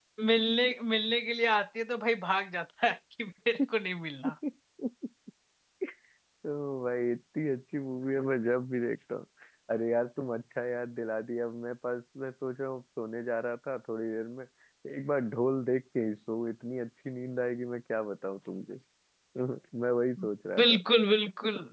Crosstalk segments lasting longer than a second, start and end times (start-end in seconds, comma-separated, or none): none